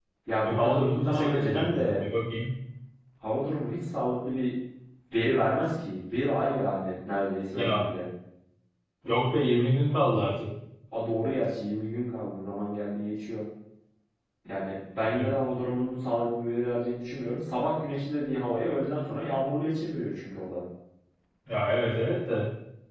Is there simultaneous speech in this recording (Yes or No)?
Yes